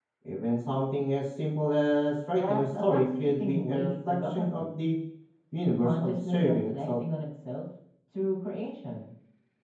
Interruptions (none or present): present